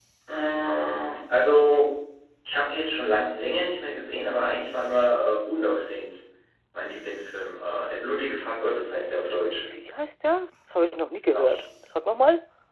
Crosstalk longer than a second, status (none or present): none